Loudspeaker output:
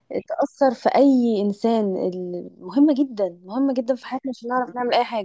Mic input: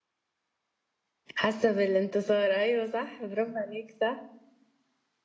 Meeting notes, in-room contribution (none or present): present